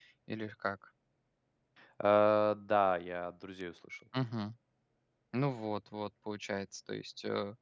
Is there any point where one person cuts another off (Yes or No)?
No